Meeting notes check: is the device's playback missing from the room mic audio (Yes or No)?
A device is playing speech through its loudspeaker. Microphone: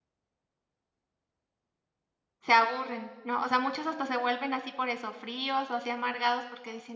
Yes